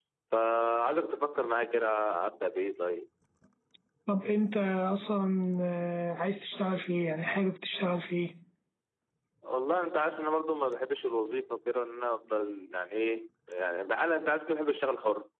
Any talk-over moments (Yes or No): No